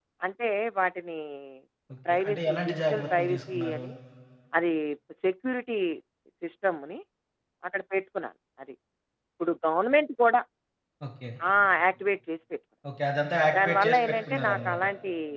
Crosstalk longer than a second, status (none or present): present